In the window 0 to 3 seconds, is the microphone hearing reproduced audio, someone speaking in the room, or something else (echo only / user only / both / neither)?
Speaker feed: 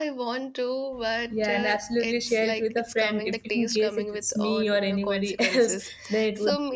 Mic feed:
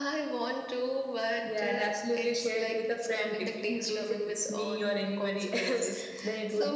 echo only